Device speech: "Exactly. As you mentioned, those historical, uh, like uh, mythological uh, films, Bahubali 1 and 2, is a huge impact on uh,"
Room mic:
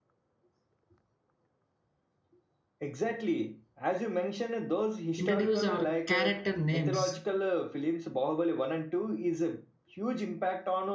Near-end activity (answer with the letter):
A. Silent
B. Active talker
B